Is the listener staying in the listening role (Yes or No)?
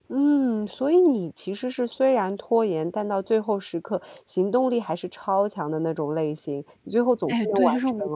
No